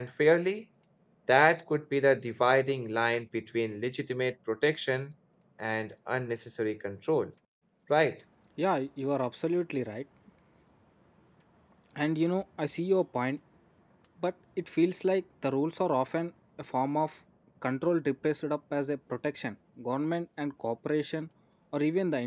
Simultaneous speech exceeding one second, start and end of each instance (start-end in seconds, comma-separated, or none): none